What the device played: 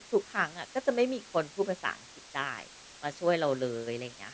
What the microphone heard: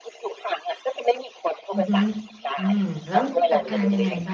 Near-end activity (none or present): present